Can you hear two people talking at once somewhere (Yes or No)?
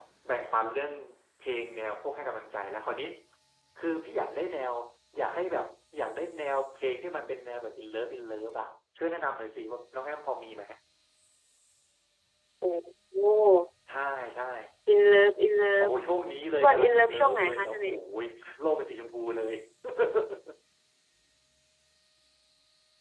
Yes